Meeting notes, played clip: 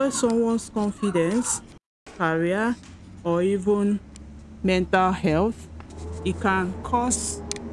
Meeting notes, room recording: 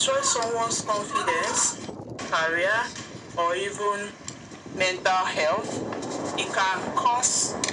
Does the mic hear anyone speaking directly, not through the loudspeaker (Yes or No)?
No